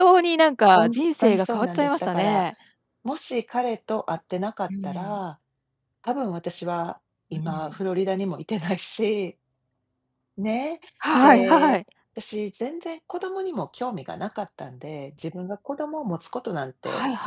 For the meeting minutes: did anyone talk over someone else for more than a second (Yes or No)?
Yes